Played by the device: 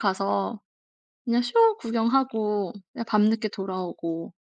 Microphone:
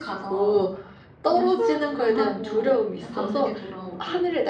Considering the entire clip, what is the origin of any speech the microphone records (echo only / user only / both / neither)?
both